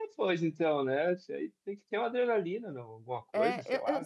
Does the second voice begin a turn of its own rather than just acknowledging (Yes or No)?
Yes